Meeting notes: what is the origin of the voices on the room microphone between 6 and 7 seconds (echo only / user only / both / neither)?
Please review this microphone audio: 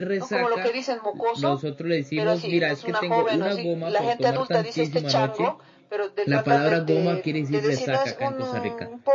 both